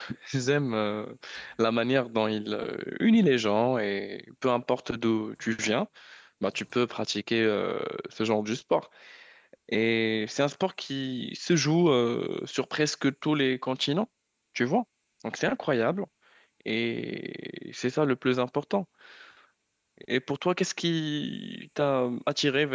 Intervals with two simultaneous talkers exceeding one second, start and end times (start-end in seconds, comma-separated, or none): none